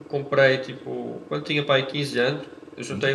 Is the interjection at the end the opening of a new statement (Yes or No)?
No